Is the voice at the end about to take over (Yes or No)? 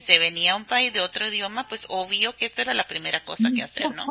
Yes